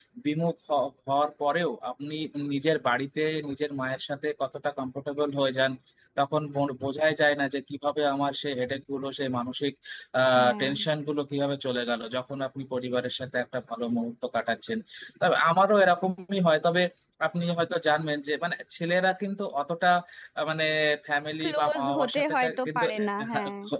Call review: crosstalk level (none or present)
present